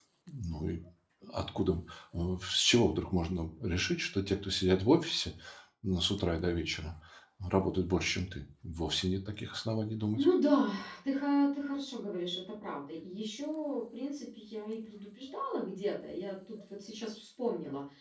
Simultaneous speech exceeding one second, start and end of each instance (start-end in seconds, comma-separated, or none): none